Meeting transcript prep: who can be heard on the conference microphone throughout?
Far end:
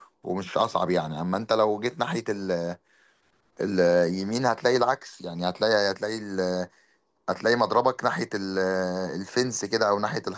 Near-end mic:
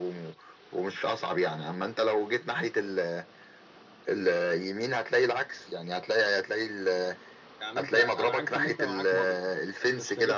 both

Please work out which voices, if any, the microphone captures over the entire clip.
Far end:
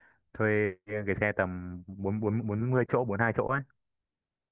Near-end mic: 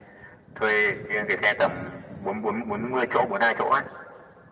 echo only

